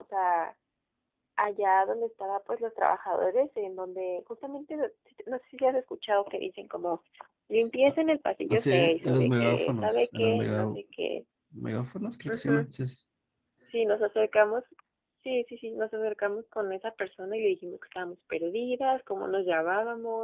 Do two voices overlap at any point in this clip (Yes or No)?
Yes